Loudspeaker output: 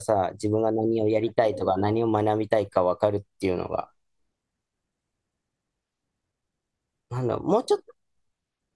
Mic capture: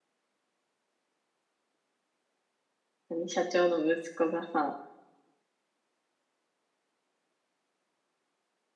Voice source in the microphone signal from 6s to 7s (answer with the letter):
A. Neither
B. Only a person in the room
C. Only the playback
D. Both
A